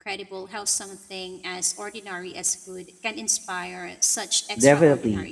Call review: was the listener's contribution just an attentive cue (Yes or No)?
No